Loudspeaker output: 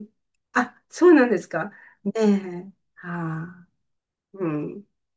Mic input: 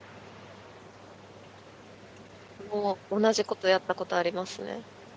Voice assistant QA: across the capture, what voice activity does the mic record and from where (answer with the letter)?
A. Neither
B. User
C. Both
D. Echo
B